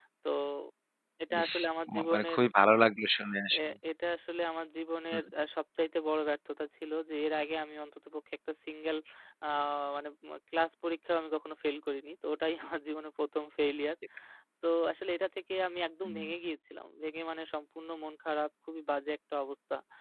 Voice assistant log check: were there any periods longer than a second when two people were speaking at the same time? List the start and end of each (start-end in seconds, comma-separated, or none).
none